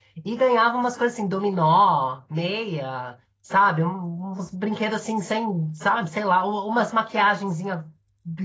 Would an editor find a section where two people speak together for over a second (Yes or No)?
No